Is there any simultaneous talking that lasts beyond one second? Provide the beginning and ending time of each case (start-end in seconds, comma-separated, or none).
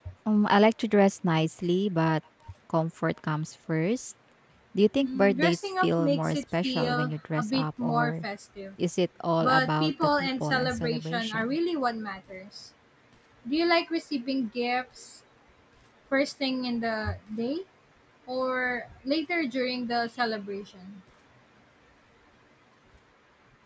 5.0-8.2, 9.4-11.6